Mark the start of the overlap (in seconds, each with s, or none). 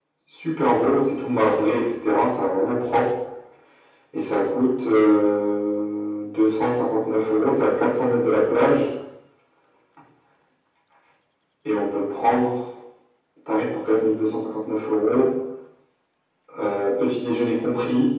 none